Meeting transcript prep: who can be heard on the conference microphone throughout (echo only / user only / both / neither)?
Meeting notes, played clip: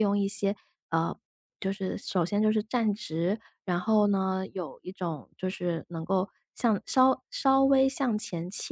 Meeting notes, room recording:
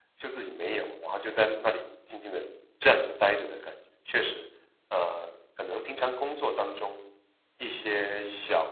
user only